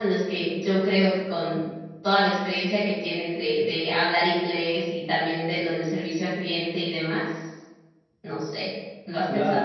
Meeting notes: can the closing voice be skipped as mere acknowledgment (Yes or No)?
No